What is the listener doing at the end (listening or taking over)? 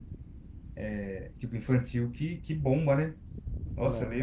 listening